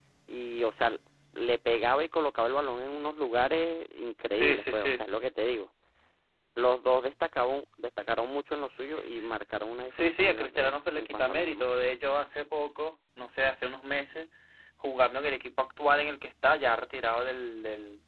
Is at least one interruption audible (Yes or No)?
Yes